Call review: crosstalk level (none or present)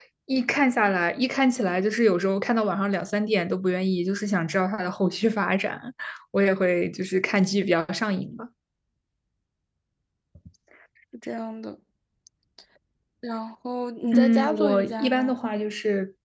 present